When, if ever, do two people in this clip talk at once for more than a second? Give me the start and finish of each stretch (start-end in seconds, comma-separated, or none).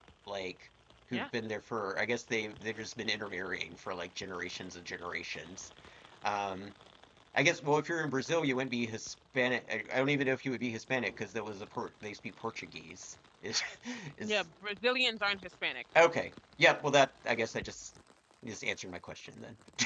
none